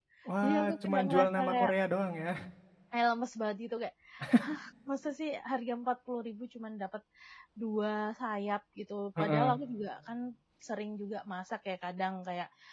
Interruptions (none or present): present